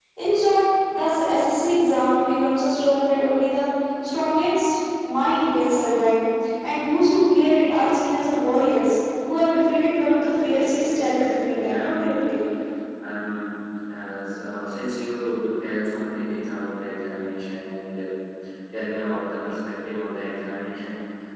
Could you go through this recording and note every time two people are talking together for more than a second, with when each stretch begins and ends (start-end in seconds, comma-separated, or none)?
10.4-12.1